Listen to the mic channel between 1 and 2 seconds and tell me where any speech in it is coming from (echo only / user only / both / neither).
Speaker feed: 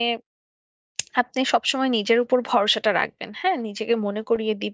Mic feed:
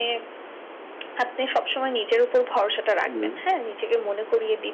echo only